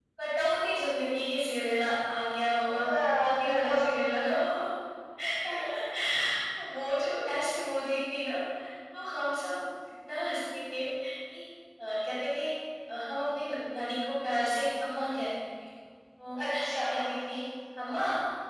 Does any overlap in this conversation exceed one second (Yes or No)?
Yes